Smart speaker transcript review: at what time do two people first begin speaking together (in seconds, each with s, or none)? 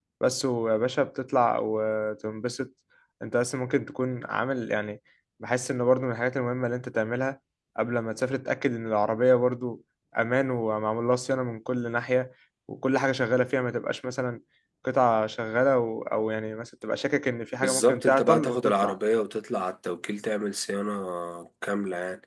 17.6 s